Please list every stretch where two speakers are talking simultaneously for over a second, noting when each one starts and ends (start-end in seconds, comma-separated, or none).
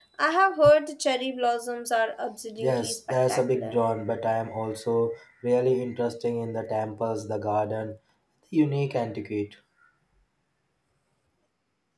2.6-3.8